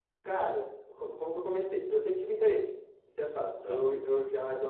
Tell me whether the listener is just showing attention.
Yes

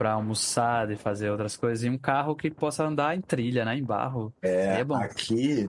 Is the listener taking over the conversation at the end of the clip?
Yes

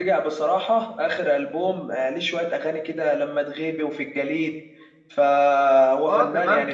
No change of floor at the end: No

